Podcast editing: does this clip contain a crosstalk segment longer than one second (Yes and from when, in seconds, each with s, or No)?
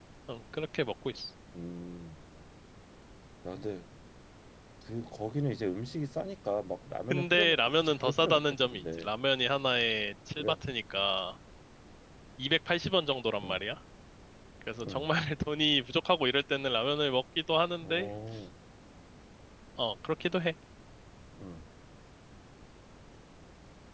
Yes, from 7.1 s